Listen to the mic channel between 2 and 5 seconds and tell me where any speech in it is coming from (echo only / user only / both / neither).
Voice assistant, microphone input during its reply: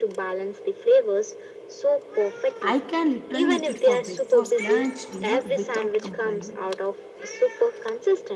both